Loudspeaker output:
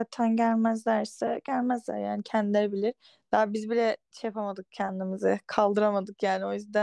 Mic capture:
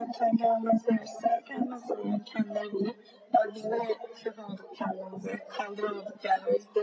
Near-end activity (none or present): none